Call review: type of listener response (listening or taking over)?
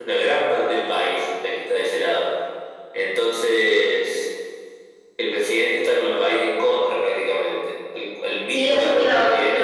taking over